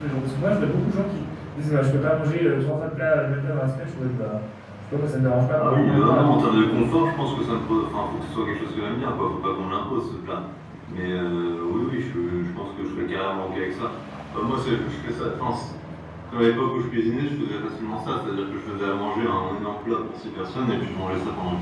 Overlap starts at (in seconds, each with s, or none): 5.5 s